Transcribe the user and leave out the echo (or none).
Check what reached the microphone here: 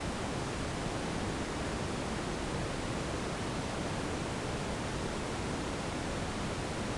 none